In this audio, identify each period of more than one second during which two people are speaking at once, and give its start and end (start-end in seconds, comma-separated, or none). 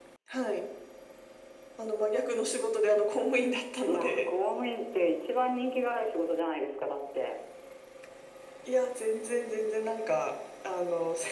none